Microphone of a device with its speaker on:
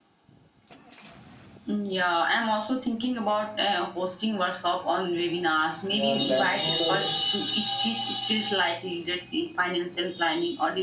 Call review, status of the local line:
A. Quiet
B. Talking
B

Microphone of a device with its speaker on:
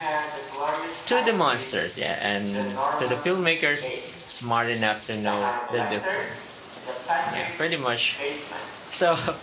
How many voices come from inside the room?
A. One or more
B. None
A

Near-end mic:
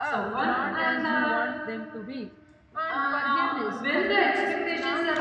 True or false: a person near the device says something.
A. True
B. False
A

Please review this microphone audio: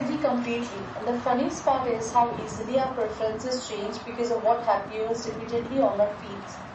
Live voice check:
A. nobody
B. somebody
A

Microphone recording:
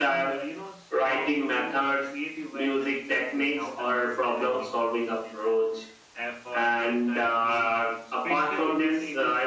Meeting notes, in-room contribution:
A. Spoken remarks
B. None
A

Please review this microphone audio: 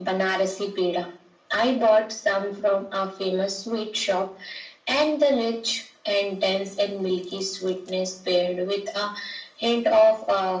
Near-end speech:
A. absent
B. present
A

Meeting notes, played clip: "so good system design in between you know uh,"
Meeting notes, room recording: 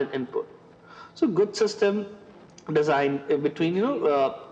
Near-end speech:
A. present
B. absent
A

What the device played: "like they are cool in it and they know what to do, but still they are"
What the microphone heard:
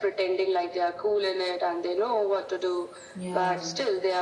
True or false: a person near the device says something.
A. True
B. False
A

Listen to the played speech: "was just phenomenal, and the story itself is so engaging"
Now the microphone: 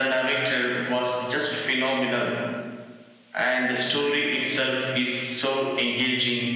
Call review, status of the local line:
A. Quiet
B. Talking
A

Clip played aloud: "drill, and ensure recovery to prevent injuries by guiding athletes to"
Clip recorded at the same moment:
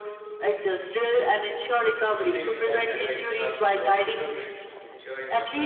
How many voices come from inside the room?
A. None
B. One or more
B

